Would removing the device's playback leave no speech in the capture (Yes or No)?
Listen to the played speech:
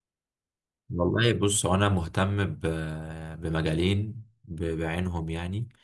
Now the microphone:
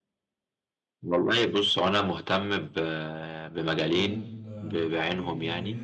No